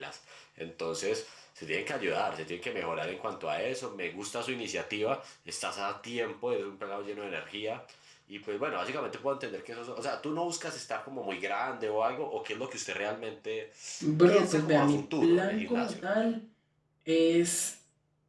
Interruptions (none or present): present